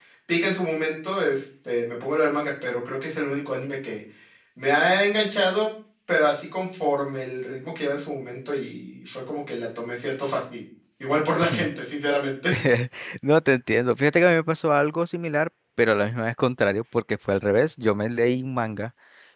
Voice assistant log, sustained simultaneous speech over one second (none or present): none